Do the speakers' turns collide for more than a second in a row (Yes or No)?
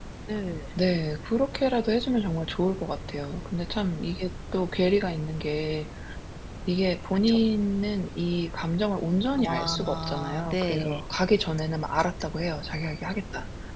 Yes